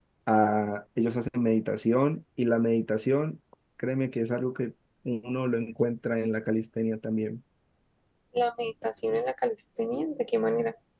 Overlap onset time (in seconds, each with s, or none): none